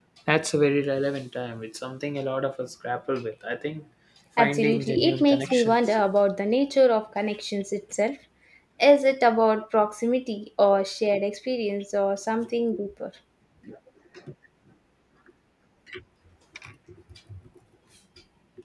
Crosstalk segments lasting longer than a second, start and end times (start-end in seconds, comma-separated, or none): 4.4-6.0